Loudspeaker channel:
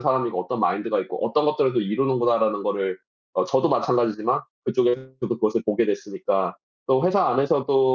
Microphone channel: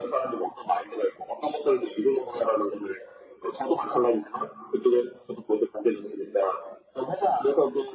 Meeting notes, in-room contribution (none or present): none